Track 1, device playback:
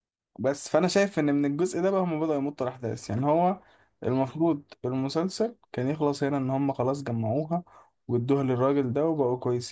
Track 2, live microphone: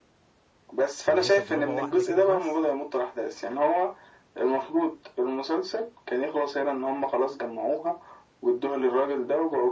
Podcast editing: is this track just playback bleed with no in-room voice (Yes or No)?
No